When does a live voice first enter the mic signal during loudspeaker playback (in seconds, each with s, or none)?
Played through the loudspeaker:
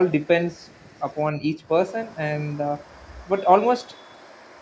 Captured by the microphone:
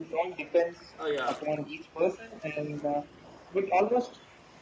1.0 s